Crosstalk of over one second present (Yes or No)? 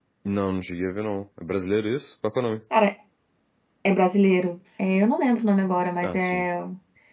No